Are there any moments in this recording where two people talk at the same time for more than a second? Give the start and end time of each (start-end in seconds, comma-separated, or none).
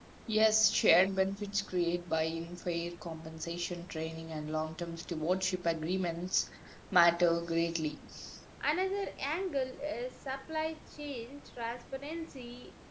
none